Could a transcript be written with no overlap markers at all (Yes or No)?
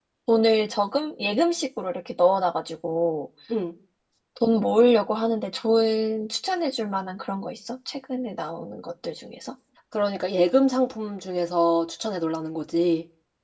Yes